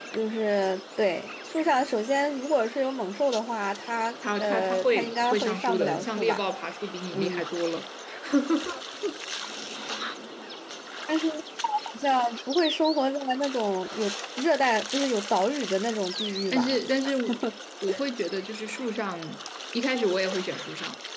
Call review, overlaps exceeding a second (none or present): present